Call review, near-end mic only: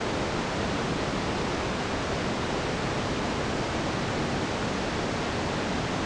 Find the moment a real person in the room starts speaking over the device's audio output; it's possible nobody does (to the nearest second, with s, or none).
none